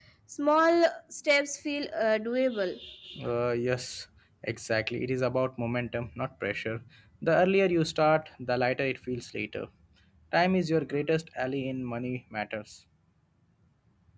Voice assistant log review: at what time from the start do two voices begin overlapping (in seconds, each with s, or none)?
none